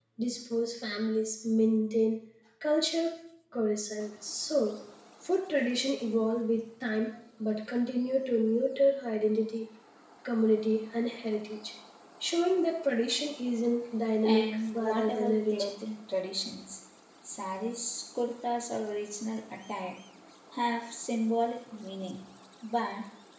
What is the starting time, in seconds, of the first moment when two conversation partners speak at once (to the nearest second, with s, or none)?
14 s